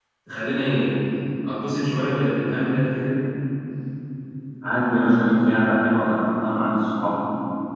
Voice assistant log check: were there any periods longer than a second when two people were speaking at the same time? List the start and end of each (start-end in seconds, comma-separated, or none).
none